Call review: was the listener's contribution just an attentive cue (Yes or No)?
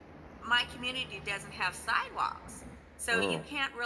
Yes